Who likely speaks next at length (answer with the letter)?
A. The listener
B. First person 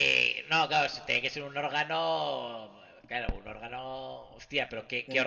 A